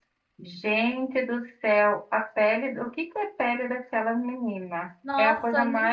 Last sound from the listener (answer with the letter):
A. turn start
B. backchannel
A